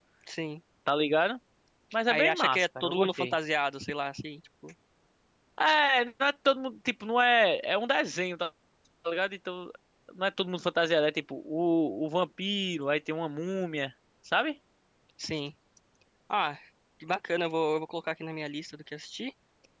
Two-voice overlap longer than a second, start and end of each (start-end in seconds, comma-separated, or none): 2.1-3.3